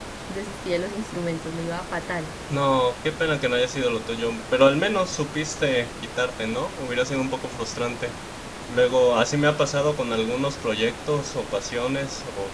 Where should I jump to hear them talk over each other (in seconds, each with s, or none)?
none